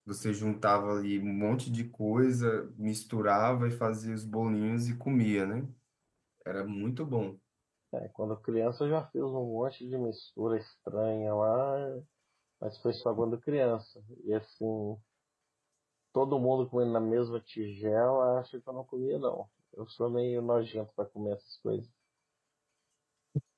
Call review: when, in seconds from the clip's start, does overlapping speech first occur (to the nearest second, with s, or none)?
none